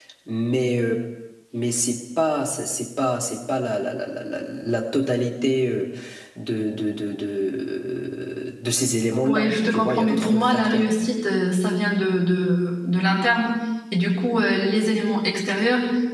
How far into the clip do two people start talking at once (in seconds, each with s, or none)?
9.2 s